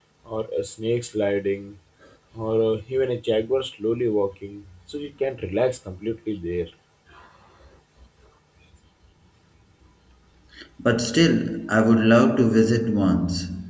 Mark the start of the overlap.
none

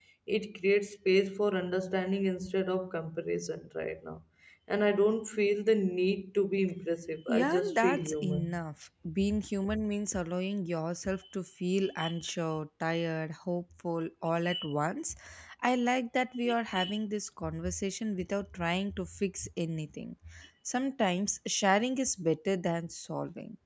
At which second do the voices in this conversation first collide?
7 s

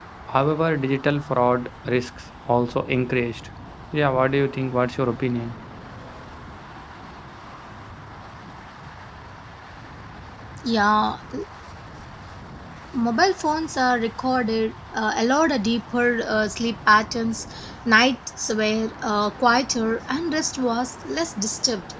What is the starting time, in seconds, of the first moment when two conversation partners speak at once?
none

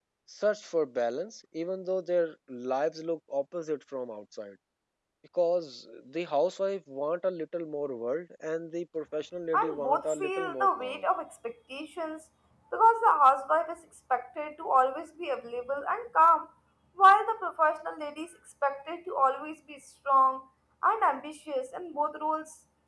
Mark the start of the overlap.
10 s

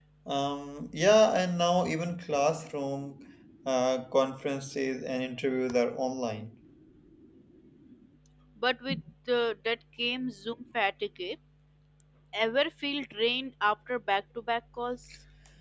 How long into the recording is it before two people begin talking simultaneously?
none

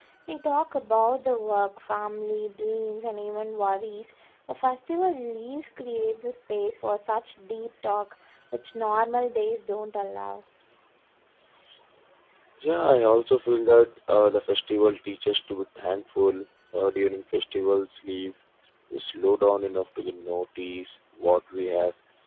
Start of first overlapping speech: none

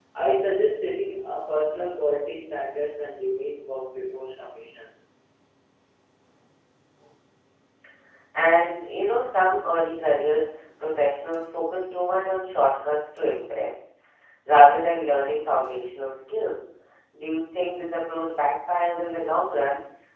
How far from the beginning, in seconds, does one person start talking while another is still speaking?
none

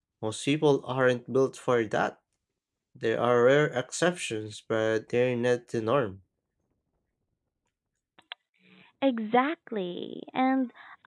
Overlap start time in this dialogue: none

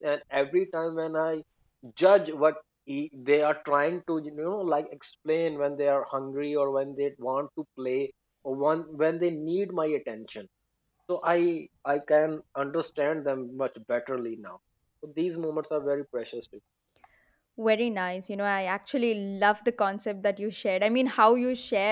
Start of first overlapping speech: none

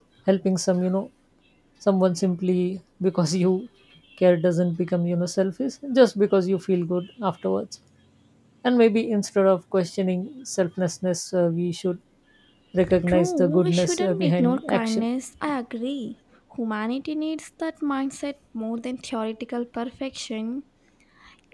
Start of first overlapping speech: 13 s

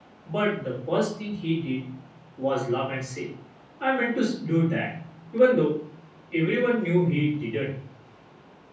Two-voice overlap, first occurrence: none

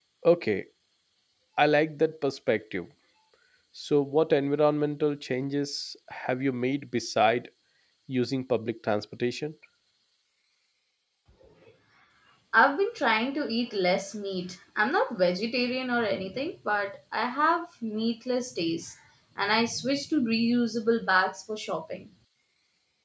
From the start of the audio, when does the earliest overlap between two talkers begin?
none

